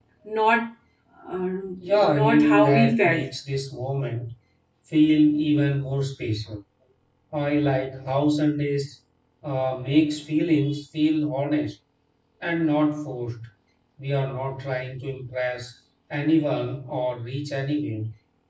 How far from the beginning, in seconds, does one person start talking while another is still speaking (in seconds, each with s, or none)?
1.9 s